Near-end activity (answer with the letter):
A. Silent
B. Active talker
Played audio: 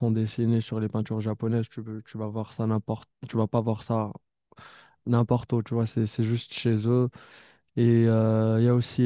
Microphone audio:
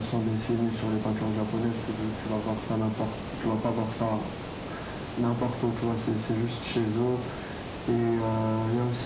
A